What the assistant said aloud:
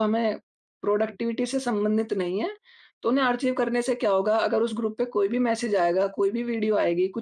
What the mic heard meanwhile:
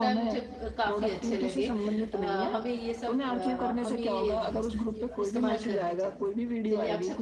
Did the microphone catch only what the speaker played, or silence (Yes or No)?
No